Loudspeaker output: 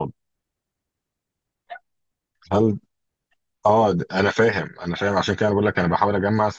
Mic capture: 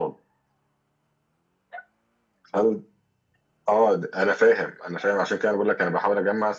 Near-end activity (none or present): none